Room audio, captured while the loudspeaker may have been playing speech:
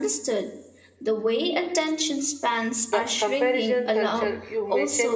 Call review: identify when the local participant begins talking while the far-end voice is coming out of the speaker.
2.9 s

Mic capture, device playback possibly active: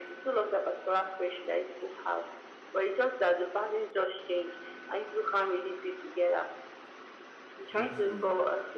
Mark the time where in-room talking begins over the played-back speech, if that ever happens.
7.7 s

